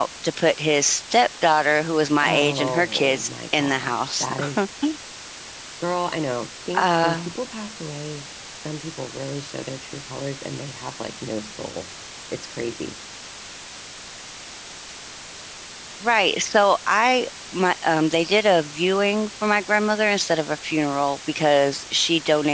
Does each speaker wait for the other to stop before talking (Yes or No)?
No